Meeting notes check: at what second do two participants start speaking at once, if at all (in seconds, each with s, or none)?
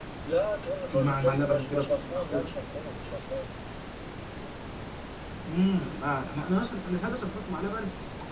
0.9 s